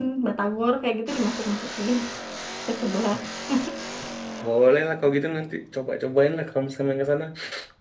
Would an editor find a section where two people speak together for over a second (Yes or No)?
No